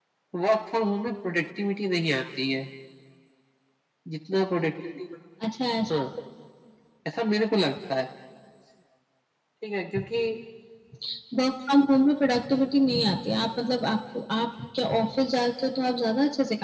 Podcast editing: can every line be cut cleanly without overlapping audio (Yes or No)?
Yes